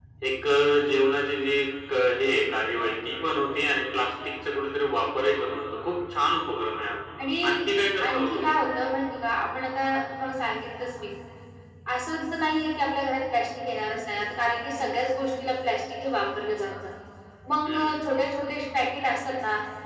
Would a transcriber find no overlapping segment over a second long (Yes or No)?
Yes